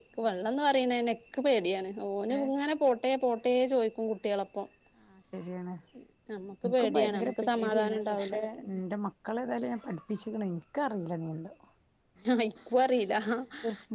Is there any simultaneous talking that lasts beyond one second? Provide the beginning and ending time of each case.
6.7-8.3

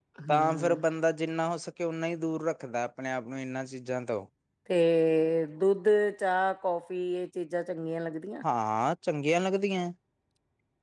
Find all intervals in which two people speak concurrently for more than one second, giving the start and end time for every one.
none

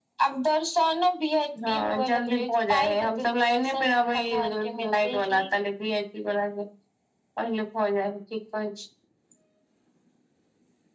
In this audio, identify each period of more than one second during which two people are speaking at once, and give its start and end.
1.7-5.4

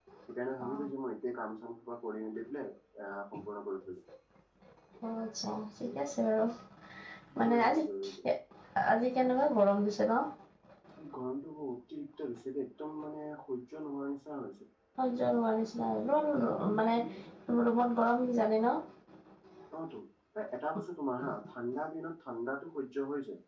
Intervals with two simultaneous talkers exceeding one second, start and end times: none

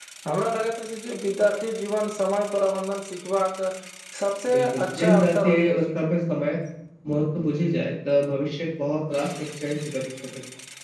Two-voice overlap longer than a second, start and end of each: 4.5-6.0

